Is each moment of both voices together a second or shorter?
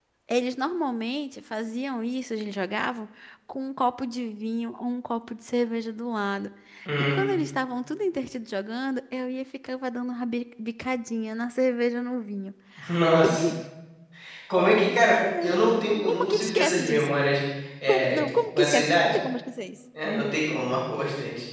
No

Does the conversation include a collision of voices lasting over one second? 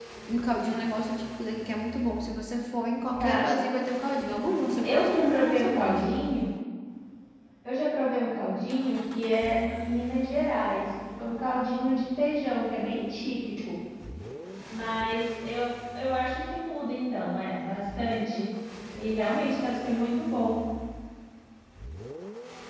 Yes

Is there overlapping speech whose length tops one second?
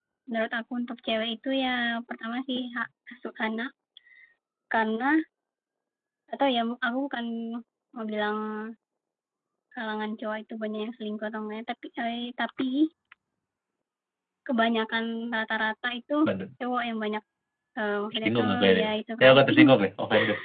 Yes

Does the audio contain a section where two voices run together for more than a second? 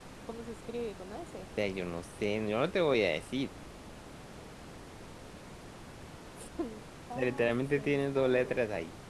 Yes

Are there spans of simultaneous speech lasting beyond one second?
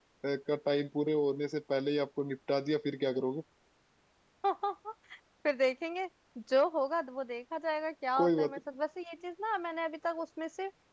No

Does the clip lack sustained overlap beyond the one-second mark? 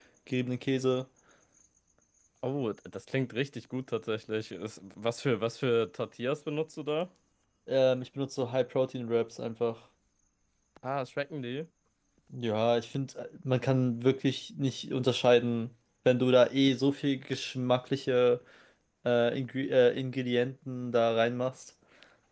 Yes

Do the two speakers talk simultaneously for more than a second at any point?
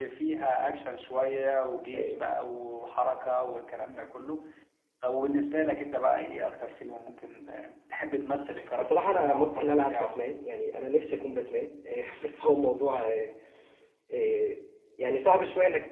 Yes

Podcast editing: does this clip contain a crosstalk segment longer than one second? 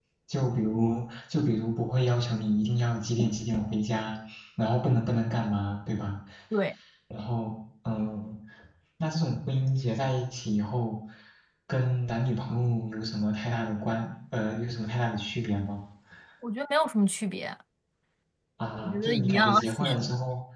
Yes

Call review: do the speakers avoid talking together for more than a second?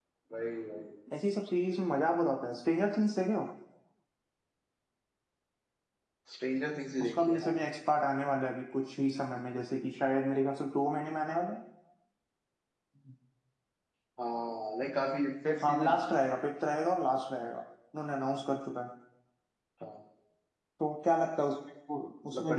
Yes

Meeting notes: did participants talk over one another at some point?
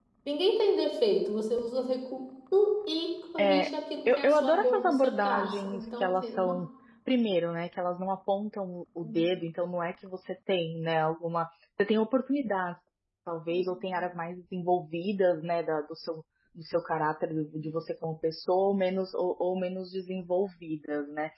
Yes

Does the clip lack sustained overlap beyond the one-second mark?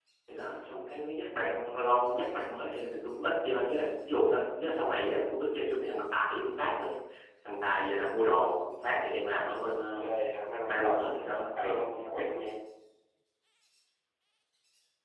No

